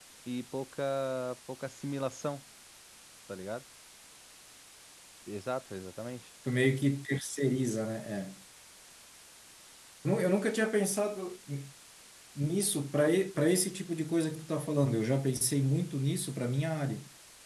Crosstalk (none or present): none